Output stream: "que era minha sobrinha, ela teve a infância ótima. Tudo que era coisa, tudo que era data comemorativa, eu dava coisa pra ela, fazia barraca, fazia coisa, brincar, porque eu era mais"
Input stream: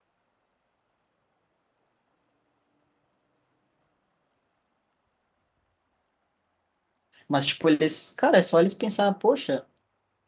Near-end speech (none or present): present